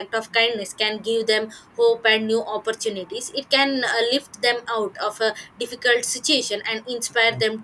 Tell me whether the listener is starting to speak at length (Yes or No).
No